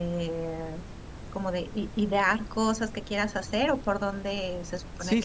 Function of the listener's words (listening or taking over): taking over